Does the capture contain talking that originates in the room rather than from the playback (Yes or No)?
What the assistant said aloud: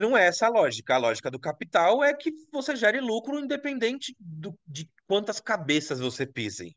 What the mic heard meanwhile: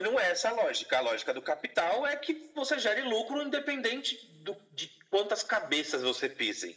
No